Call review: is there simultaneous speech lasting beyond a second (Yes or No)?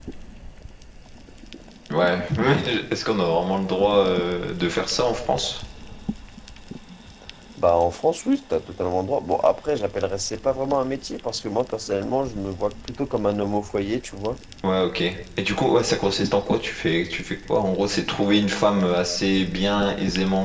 No